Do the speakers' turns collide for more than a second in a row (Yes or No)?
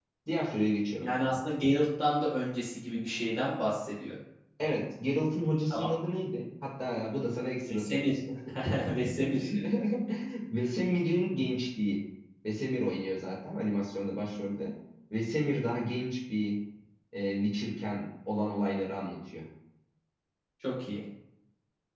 No